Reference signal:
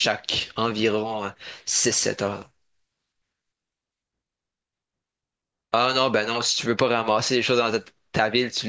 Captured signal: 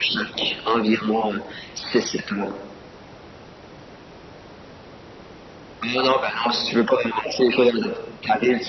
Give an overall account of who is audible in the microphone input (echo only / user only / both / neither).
echo only